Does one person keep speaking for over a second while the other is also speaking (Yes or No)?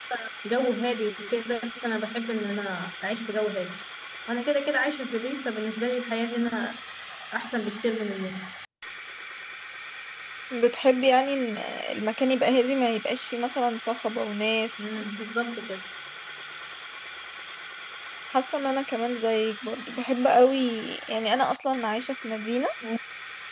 No